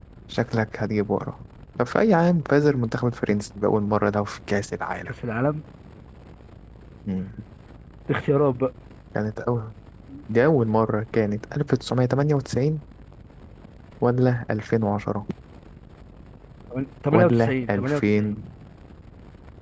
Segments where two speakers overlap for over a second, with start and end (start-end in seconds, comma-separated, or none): 17.1-18.4